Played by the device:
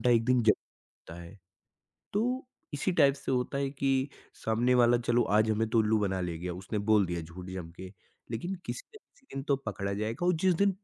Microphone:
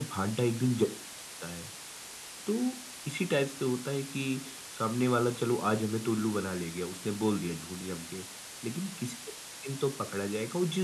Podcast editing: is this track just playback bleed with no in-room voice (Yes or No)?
Yes